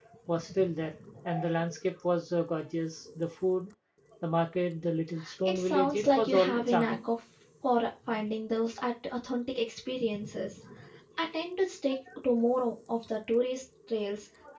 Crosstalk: present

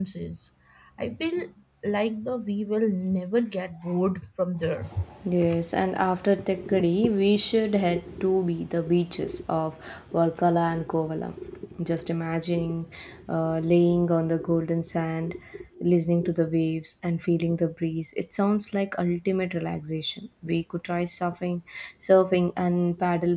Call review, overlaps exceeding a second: none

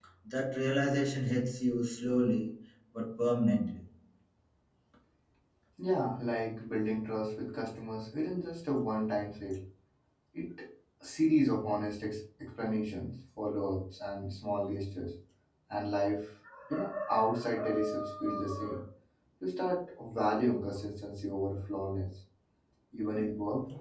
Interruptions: none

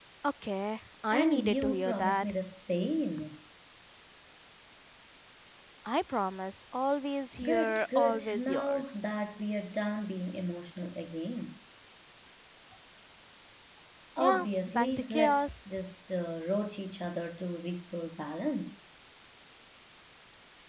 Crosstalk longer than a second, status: present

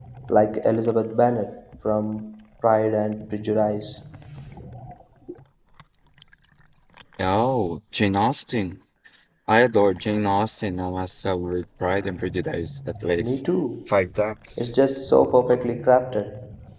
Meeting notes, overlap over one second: none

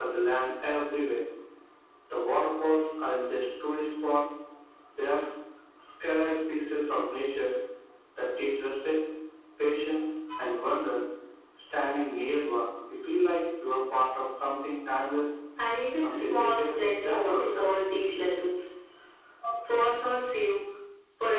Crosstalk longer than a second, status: present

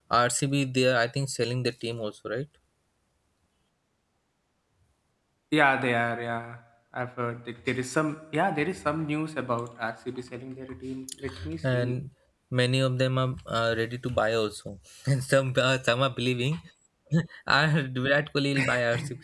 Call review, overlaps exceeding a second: none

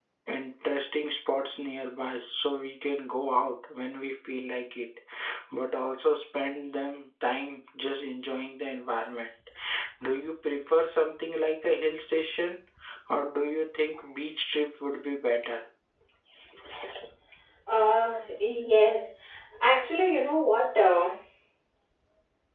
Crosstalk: none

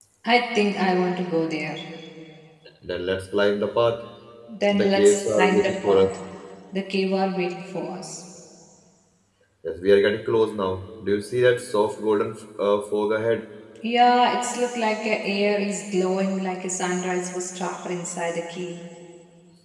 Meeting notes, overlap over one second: present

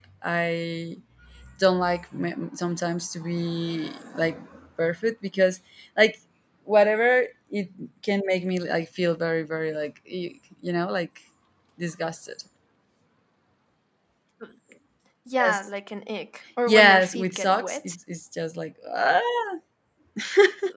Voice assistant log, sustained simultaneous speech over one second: present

